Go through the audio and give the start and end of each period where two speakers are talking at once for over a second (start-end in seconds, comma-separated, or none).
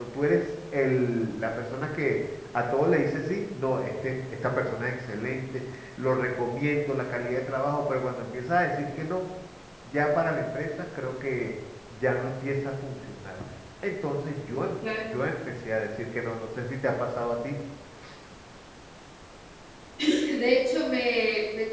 none